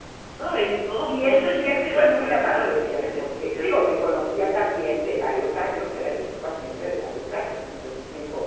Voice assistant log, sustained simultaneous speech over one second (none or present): present